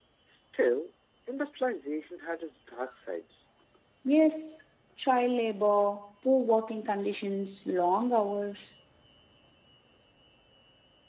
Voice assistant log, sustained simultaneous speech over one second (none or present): none